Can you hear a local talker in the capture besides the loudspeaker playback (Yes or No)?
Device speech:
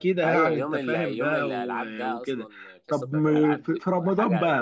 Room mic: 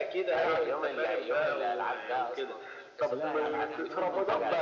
Yes